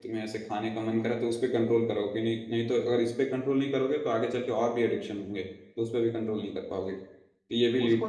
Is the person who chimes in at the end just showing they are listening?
No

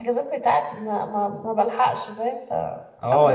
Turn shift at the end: Yes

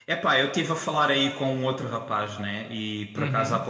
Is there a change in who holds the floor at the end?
No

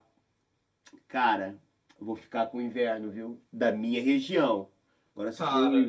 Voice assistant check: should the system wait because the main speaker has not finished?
Yes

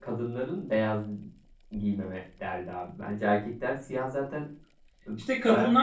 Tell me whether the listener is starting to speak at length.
Yes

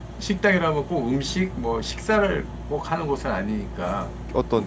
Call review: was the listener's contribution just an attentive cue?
No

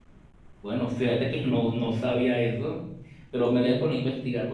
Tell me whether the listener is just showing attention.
Yes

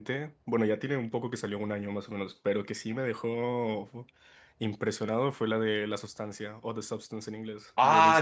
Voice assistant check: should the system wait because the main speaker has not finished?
No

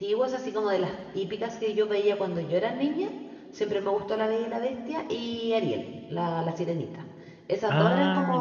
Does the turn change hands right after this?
No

